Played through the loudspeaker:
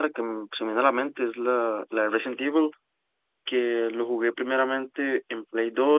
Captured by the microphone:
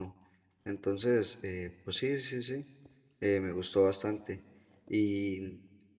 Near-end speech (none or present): present